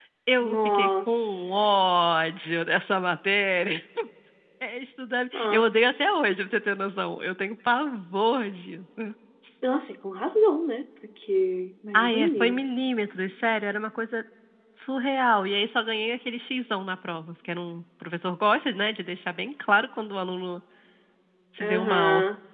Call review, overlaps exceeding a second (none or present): present